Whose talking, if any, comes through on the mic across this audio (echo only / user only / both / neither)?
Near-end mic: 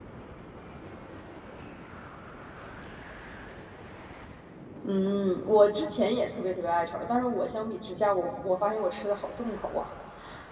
user only